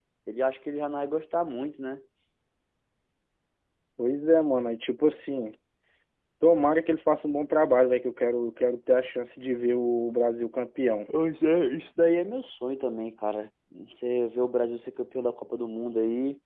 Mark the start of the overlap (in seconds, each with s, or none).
none